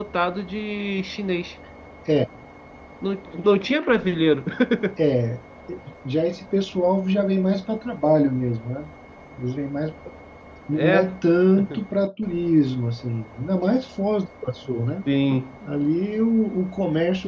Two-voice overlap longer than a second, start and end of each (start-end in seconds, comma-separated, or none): none